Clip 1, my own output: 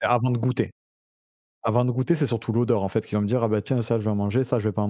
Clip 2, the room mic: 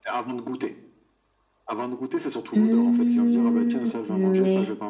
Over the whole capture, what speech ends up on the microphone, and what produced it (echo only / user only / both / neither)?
both